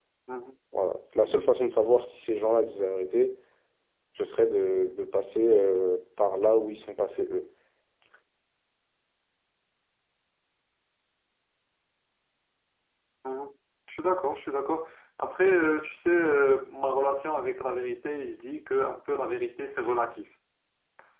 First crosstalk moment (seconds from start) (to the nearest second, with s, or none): none